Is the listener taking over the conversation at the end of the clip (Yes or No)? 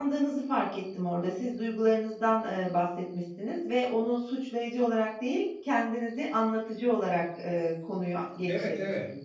Yes